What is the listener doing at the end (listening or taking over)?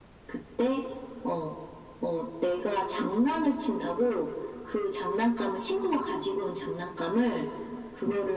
listening